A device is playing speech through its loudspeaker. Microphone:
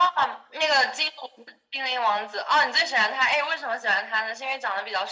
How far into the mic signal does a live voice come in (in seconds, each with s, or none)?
none